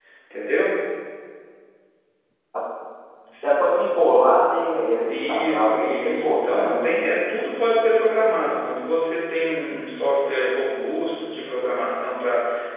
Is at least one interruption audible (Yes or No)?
Yes